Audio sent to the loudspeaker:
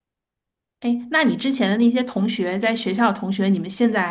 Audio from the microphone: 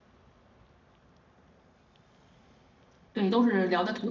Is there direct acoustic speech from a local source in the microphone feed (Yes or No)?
Yes